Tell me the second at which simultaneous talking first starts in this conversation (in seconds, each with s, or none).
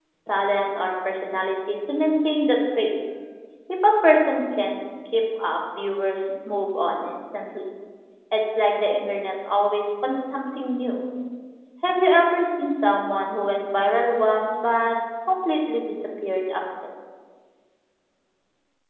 none